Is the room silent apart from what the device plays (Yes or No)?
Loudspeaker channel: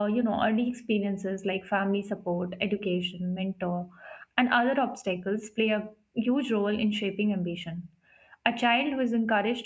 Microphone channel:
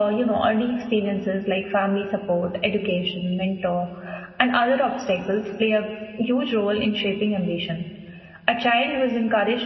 Yes